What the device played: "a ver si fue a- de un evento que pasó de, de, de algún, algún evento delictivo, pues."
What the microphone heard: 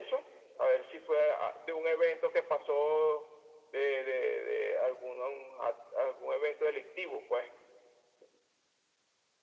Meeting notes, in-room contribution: none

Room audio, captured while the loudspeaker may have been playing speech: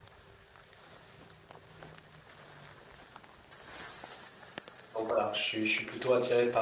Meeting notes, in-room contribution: present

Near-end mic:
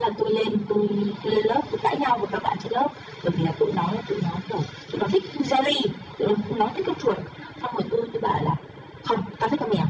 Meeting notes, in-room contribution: none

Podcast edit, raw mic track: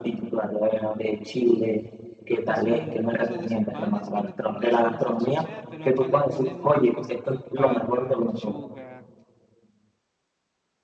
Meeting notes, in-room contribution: present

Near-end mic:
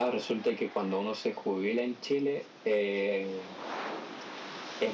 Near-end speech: present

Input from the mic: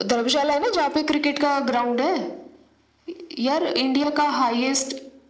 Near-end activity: none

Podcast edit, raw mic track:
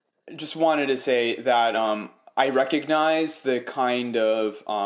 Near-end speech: present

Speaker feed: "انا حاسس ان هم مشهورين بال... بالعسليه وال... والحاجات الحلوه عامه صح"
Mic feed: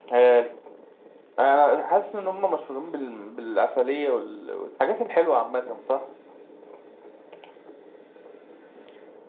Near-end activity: none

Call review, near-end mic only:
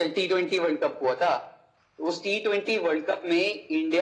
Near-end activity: none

